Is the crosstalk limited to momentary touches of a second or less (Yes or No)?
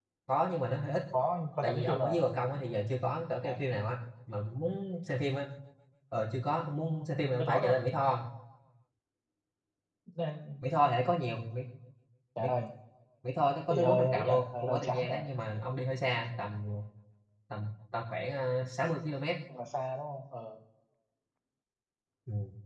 No